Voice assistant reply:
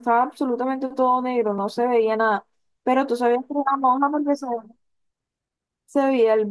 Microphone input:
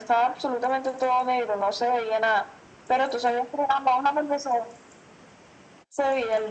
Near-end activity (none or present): none